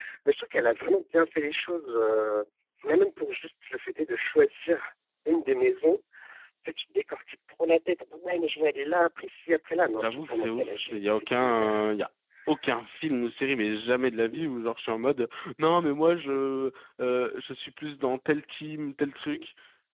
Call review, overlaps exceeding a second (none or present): present